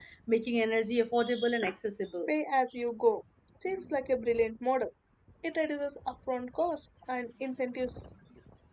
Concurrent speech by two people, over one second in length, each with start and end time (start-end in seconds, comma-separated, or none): none